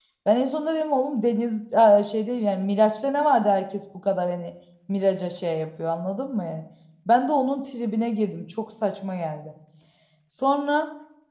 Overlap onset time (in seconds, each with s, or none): none